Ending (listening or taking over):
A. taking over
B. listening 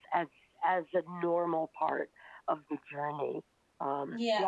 A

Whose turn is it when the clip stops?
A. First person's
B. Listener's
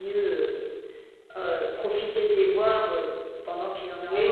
B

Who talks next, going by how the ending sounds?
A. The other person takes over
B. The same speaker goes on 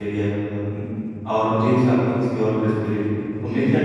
B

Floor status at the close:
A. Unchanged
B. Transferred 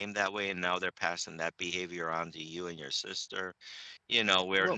A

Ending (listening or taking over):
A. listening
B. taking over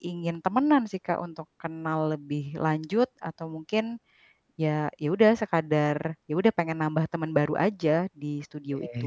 B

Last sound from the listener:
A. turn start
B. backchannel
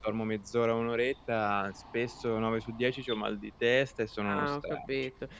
A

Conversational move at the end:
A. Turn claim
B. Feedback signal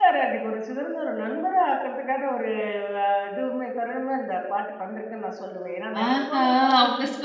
A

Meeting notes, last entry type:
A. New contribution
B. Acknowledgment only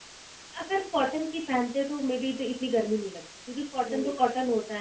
B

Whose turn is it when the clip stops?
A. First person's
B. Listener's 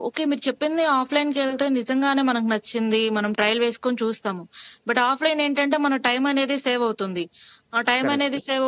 A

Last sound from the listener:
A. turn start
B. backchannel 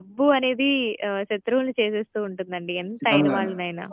A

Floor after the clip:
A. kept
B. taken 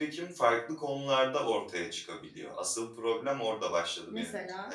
A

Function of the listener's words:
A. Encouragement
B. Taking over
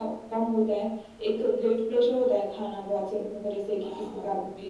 A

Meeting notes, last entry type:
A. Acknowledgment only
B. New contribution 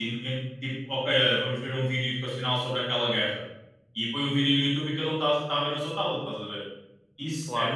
A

